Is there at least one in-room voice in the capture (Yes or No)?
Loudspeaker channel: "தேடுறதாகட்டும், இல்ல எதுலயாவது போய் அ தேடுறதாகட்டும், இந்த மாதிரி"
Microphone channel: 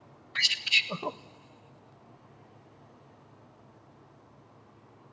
Yes